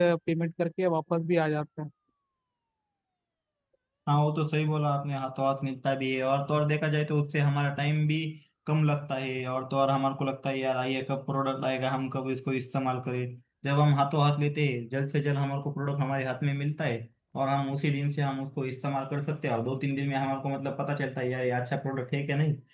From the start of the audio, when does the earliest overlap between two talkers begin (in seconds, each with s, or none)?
none